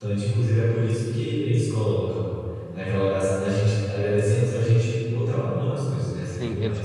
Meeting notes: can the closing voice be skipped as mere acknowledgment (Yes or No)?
No